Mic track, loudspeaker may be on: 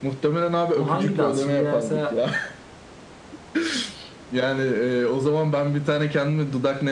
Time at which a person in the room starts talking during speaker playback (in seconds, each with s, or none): 0.7 s